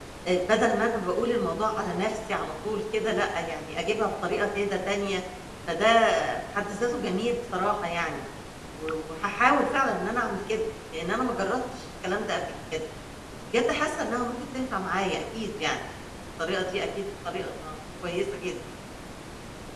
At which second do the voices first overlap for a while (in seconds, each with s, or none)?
none